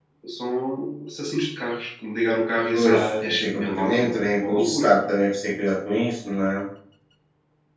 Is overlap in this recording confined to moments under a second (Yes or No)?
No